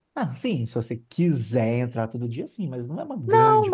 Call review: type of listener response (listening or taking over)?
taking over